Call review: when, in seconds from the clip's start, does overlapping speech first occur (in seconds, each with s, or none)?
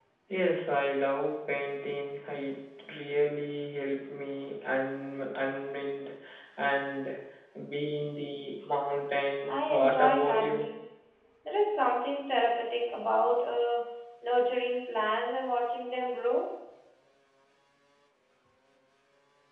9.5 s